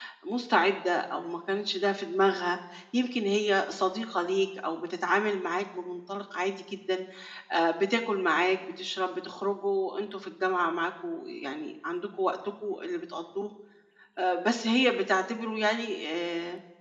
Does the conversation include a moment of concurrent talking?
No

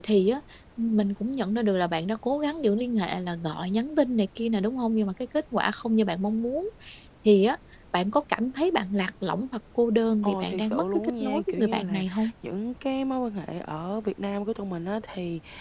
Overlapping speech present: Yes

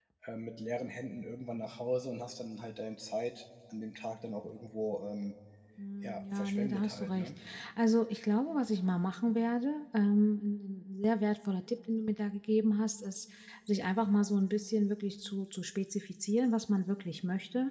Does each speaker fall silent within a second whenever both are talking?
No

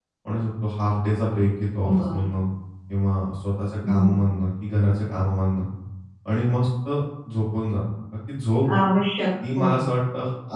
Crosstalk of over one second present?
No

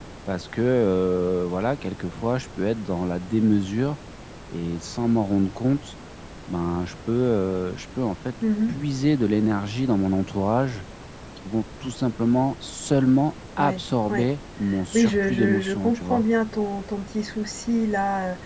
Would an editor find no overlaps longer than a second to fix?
No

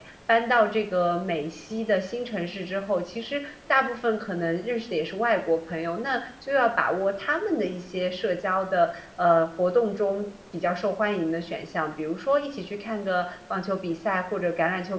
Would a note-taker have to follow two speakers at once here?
No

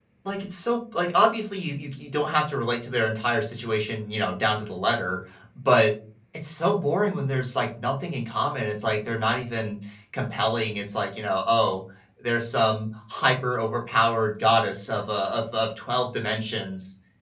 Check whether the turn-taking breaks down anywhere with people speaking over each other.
No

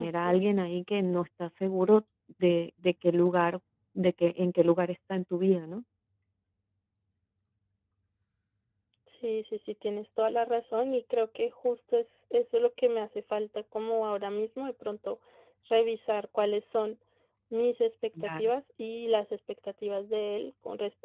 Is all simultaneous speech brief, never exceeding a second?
Yes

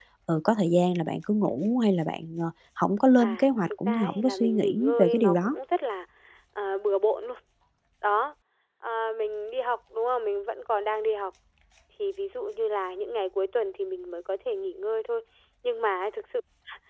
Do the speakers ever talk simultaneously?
Yes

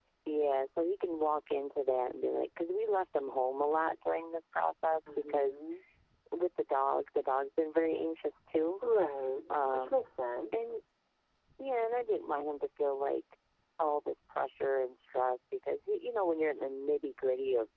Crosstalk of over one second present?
No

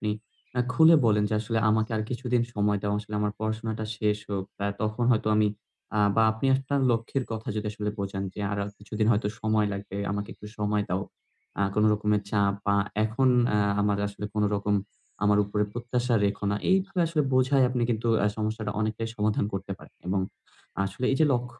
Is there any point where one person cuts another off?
No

